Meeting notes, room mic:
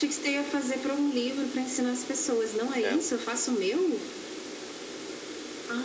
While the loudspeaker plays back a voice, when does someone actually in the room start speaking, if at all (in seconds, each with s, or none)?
2.8 s